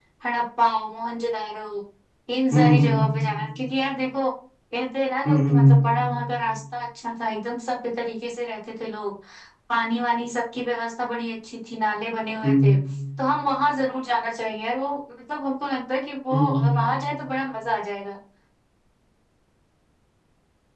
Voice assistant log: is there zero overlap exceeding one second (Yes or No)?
Yes